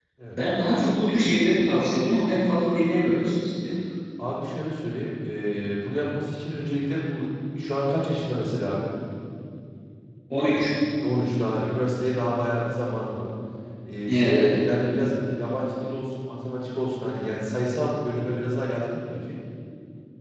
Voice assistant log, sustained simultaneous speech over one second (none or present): none